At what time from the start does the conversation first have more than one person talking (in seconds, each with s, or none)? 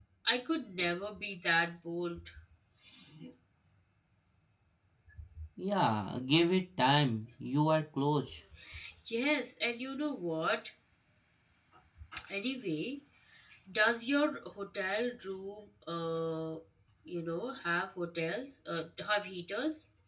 none